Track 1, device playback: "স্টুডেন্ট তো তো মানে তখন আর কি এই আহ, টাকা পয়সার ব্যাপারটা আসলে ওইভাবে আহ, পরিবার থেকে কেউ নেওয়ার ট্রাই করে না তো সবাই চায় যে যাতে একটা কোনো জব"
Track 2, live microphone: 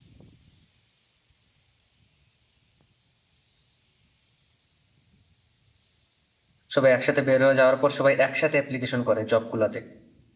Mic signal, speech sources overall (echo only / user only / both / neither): user only